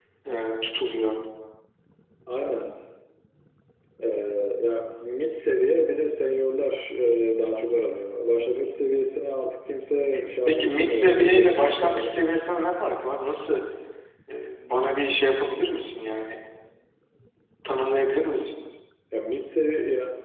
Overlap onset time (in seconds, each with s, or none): 10.4 s